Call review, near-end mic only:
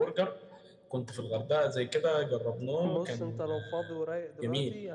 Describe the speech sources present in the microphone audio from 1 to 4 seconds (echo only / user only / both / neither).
echo only